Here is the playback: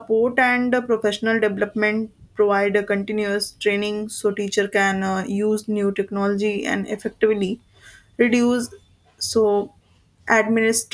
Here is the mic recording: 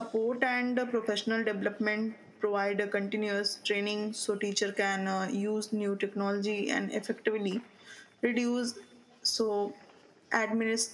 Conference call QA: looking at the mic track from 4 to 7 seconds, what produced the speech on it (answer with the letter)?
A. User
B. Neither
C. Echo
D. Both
C